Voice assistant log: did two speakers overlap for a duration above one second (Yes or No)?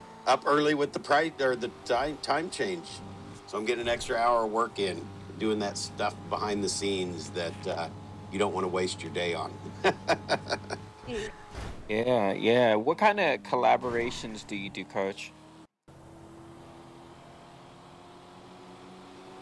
No